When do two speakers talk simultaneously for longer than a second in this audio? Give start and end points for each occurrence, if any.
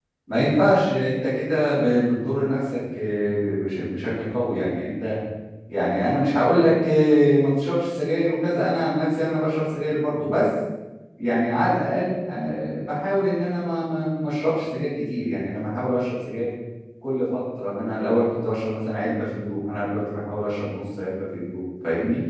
none

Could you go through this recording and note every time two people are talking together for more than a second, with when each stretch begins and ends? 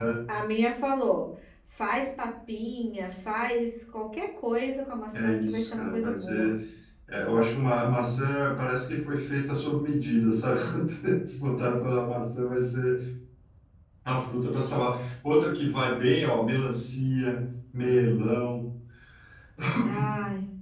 5.2-6.5

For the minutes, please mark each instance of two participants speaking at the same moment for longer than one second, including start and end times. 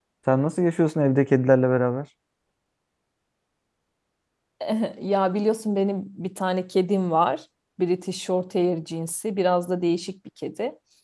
none

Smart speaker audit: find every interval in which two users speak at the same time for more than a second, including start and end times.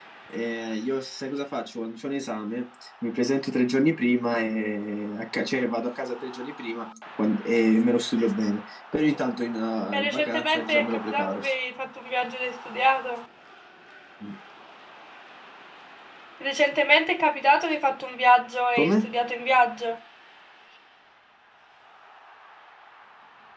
9.9-11.4

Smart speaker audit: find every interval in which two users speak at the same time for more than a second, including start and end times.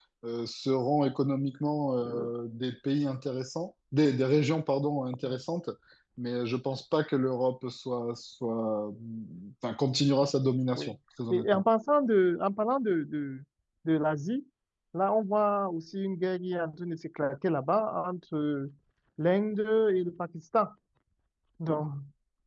none

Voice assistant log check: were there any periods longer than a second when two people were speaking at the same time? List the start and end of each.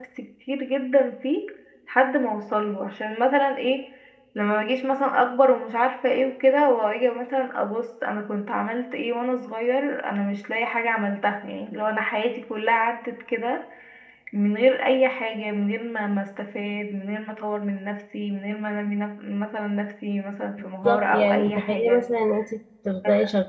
20.8-22.0

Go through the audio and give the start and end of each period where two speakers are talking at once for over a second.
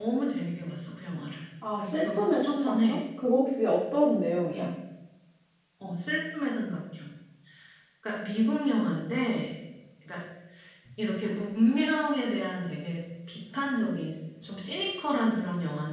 1.8-3.0

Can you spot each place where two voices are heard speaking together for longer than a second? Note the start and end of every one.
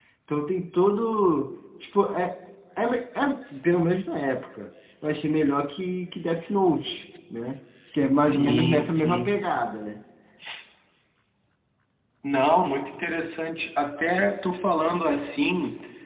8.2-9.4

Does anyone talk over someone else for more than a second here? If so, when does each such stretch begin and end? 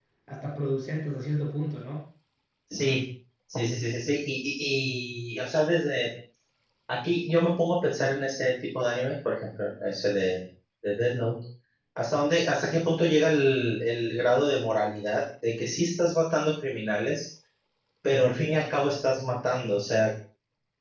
none

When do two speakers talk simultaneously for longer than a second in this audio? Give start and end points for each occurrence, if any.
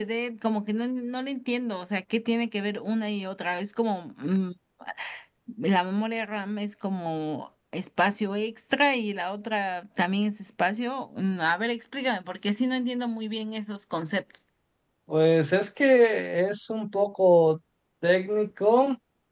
none

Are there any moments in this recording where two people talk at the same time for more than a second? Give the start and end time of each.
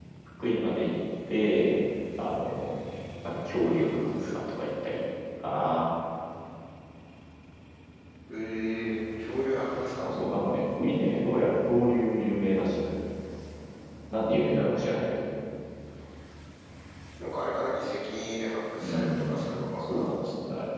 18.8-20.0

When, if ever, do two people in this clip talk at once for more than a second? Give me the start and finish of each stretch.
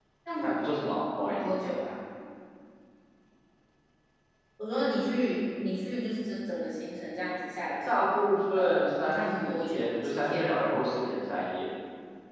8.5-10.5

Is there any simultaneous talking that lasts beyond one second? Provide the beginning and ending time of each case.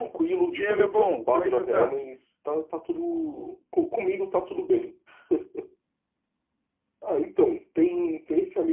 0.5-2.0

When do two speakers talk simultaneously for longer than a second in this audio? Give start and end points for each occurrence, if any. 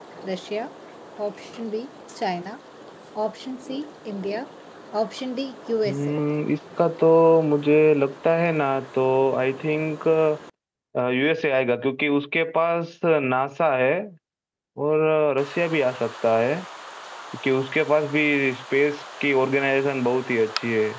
none

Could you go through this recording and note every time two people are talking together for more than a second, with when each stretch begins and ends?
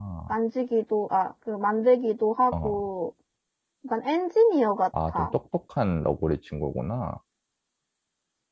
none

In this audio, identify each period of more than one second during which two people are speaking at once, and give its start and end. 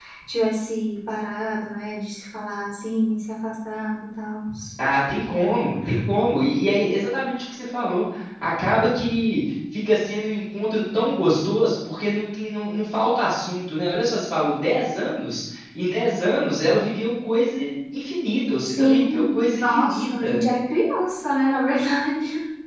18.6-20.4

